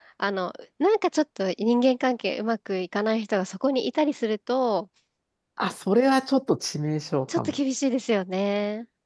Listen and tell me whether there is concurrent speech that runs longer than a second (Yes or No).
No